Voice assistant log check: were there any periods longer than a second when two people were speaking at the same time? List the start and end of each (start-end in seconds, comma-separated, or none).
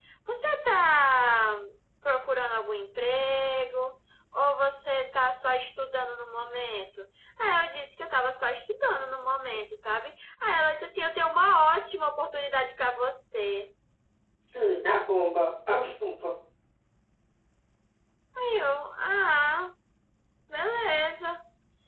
none